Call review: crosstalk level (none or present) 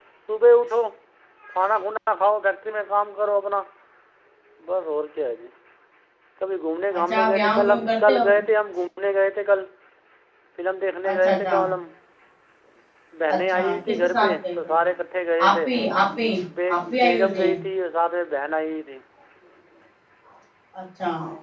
present